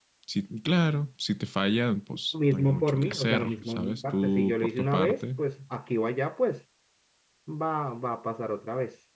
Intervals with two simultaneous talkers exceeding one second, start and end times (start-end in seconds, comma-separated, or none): 2.5-5.2